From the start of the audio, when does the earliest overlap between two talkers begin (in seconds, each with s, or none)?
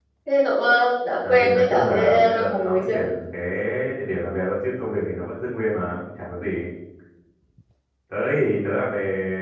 1.2 s